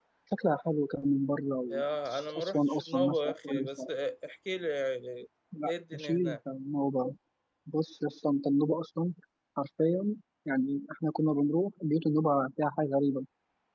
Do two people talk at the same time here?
Yes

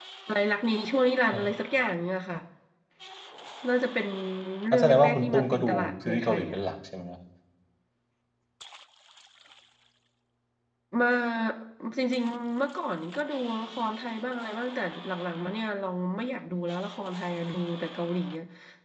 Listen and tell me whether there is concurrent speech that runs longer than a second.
Yes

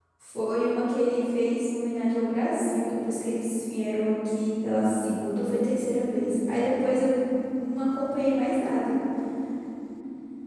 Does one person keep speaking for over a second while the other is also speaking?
No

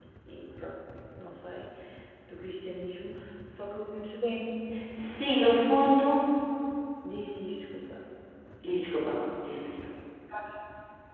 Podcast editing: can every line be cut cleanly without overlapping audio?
Yes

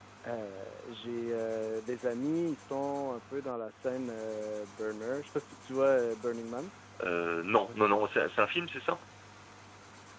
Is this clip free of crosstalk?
Yes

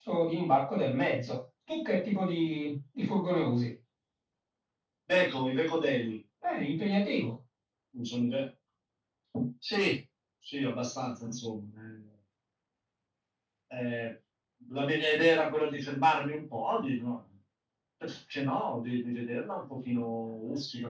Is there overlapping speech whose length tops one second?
No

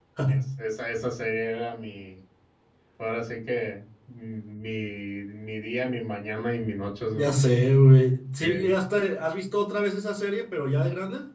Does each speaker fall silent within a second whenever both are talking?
Yes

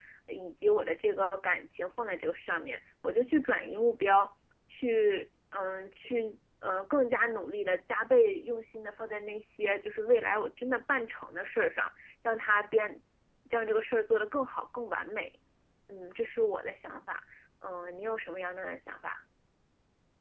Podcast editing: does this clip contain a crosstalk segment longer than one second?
No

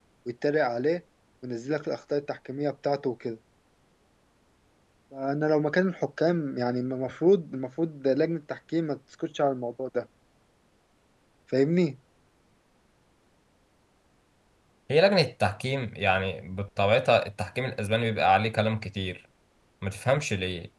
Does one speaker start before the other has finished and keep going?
No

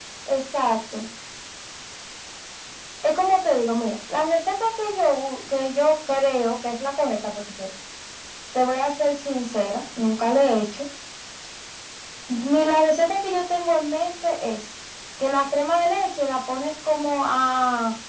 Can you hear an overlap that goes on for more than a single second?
No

